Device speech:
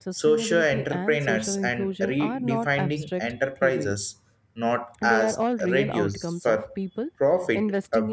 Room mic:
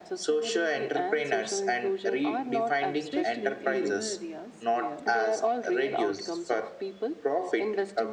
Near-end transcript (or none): especially in rural areas where